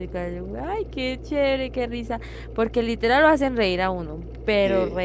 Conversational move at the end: listening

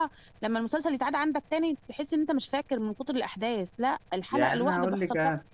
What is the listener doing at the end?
taking over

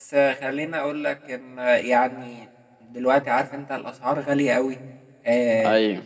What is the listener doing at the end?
listening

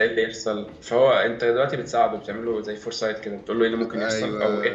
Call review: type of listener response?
listening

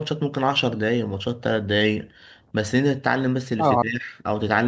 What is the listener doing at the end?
listening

